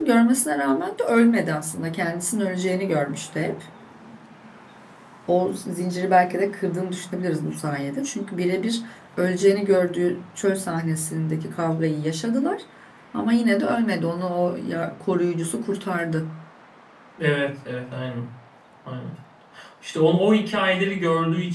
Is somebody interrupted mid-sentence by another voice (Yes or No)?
No